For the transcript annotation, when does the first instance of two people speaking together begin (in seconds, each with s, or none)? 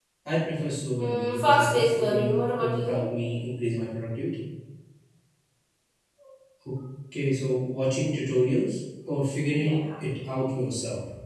1.0 s